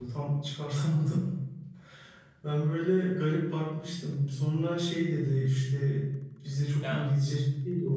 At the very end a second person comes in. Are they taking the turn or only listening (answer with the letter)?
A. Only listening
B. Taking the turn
A